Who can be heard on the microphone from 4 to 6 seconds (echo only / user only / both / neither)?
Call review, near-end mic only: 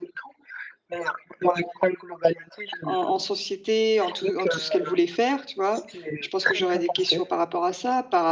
both